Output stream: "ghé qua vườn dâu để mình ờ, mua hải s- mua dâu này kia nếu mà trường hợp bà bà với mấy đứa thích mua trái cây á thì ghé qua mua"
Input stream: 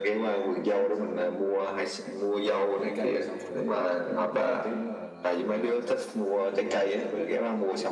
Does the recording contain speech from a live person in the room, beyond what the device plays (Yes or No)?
Yes